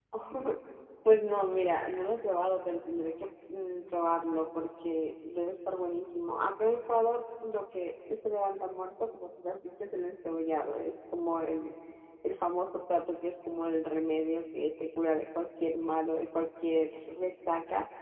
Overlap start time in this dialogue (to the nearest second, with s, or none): none